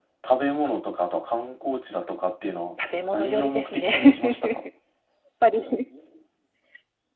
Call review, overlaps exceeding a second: present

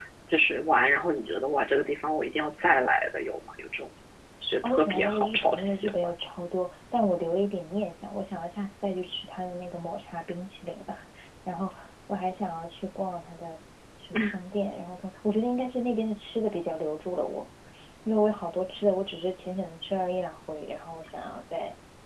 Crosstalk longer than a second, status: present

